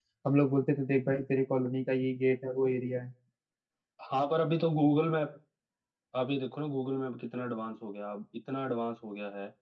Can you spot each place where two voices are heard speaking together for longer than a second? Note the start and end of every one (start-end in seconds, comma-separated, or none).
none